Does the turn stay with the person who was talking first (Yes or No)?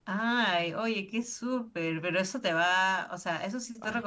Yes